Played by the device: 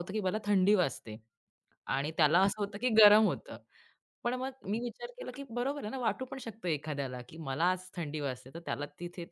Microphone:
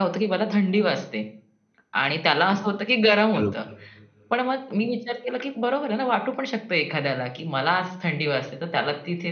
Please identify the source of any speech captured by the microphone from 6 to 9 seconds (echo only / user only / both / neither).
echo only